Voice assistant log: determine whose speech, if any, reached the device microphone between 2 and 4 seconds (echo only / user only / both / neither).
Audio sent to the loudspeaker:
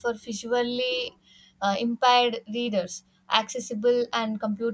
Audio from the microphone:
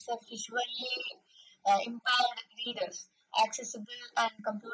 echo only